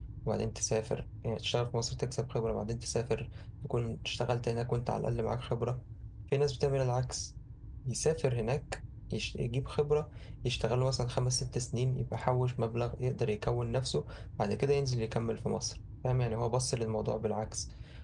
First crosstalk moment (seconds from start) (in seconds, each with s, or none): none